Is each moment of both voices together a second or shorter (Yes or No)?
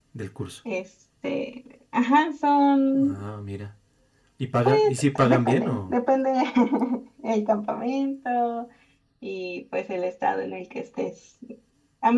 No